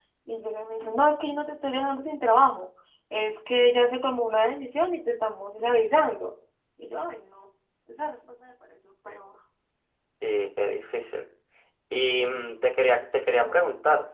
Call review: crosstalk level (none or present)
none